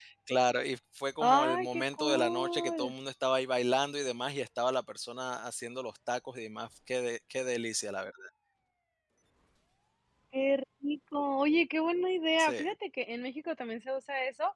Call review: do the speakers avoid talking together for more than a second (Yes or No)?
No